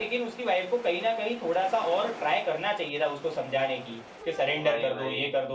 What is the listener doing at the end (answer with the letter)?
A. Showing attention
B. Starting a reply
A